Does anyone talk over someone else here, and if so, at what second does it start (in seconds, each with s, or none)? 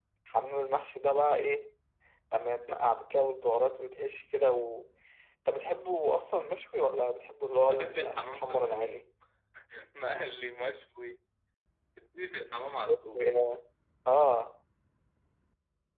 7.6 s